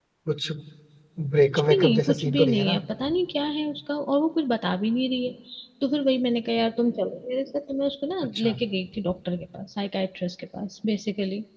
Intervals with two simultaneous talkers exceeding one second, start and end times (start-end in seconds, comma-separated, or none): 1.5-2.8